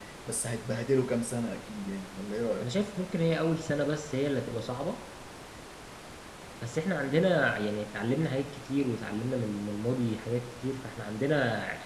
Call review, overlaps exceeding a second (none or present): none